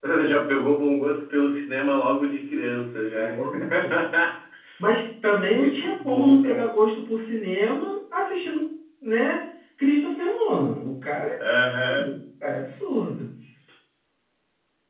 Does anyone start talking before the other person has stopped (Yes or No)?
Yes